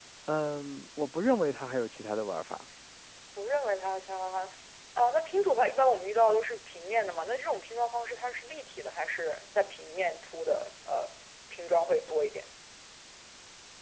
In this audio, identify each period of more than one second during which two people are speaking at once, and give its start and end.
none

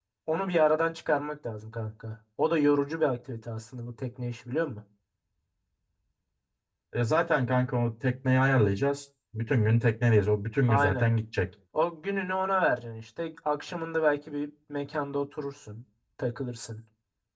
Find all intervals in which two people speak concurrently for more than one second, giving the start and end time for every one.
none

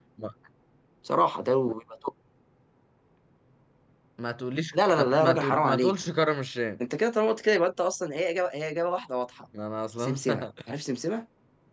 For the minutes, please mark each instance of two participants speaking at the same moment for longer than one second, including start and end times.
4.7-6.0

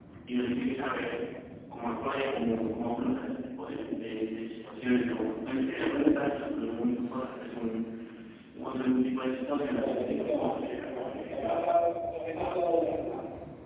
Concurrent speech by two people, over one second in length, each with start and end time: 9.7-11.7

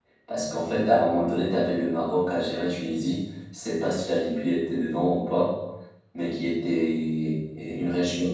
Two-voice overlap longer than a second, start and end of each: none

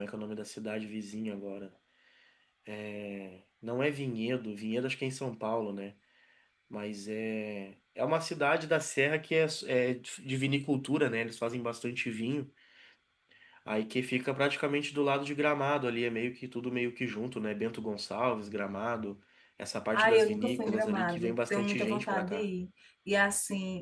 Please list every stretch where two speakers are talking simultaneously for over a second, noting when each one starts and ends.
19.9-22.4

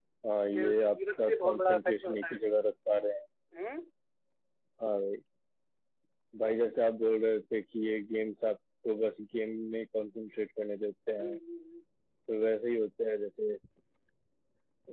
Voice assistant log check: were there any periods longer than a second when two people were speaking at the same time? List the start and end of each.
0.5-2.4

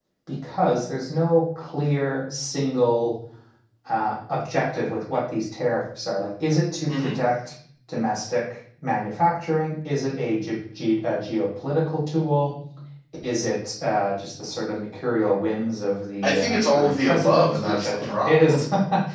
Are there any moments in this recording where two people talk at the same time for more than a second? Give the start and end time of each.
16.2-18.6

